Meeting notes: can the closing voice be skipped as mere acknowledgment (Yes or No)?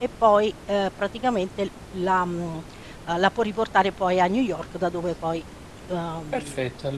No